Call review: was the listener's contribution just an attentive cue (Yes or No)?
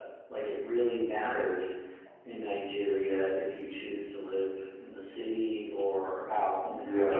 No